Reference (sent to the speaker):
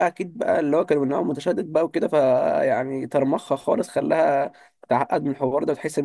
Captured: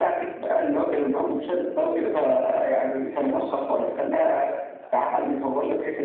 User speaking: Yes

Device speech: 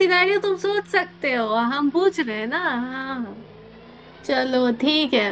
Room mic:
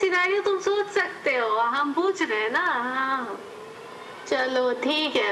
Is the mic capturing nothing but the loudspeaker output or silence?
Yes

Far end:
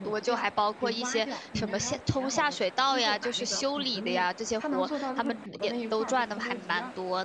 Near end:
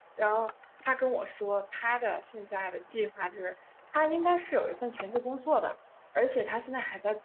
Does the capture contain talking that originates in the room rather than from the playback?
Yes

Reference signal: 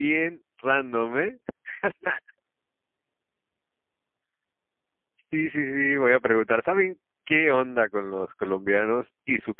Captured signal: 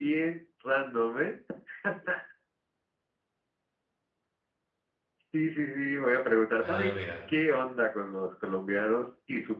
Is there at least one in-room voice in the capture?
Yes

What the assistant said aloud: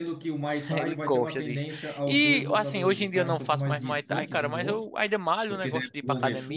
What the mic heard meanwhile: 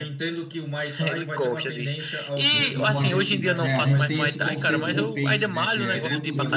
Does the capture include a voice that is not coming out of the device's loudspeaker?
Yes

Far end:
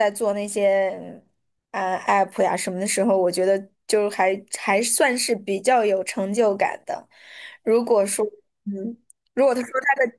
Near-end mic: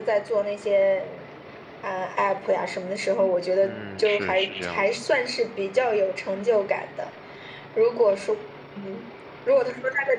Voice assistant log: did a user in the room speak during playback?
Yes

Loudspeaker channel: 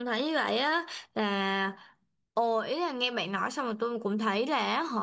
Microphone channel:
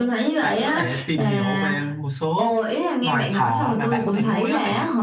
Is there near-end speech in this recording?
Yes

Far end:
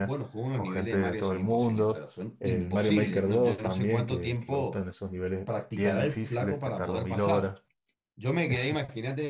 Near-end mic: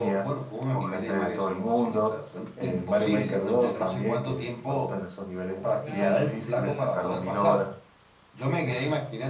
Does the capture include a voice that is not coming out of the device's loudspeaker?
Yes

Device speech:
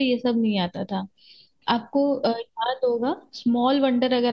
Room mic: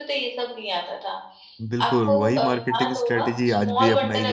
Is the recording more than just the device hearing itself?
Yes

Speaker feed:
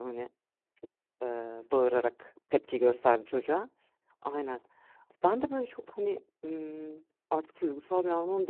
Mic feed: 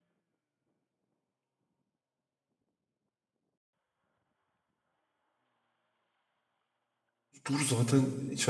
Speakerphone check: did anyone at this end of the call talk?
Yes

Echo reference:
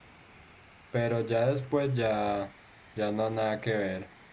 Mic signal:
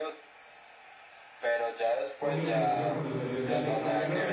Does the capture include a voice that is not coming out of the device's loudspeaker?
Yes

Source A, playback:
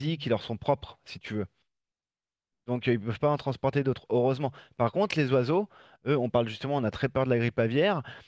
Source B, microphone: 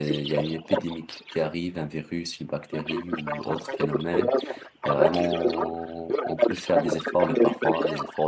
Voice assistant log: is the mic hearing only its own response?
No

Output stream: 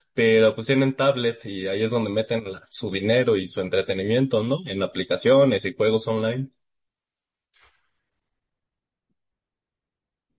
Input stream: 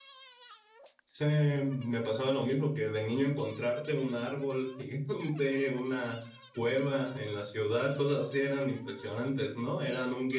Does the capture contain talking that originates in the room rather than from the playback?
Yes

